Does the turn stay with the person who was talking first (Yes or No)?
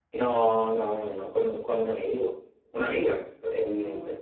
Yes